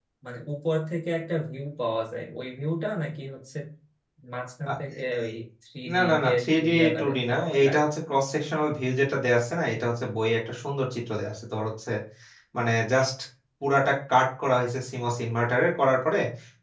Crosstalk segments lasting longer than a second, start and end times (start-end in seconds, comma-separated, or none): 5.9-7.9